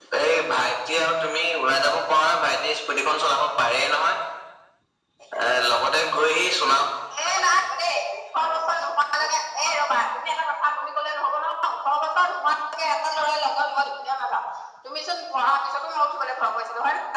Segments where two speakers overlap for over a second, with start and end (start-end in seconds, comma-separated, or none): none